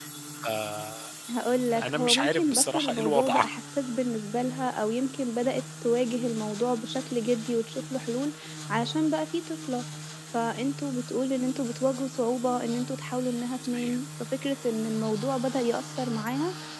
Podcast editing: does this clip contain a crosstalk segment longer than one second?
Yes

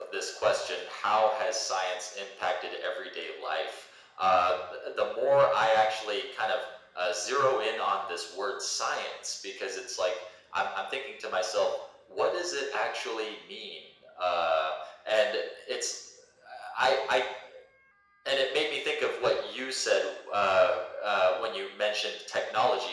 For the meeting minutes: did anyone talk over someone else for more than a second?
No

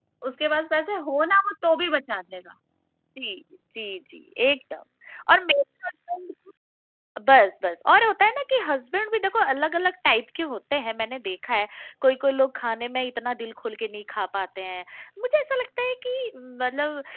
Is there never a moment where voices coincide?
Yes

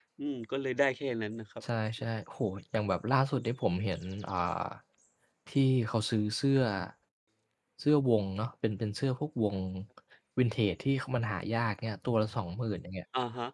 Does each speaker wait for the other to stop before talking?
Yes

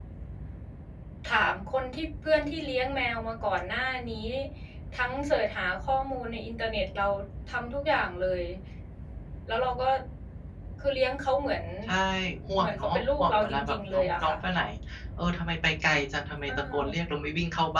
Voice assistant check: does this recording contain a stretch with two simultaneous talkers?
Yes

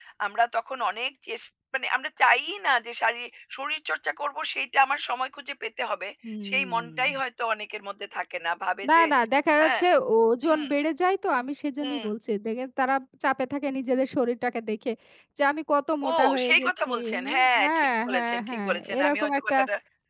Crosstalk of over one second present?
Yes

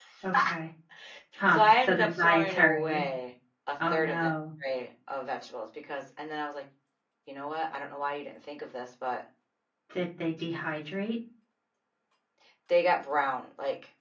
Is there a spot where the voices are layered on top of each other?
Yes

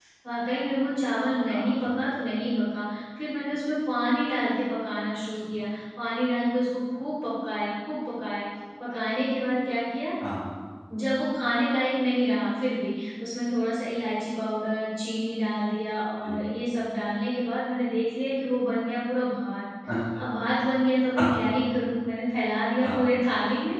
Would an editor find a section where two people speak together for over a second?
No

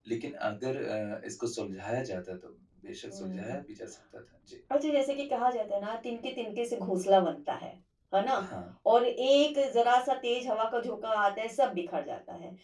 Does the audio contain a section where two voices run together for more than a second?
No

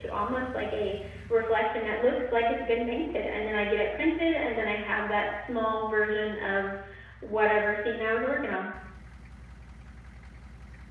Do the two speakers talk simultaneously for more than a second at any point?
No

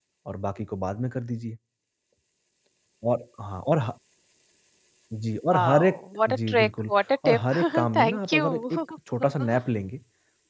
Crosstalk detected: Yes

